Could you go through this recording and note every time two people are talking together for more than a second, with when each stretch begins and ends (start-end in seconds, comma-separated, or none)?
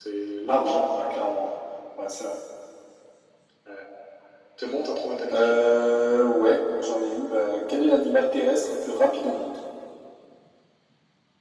none